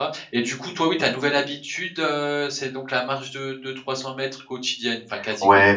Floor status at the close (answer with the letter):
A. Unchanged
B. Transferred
B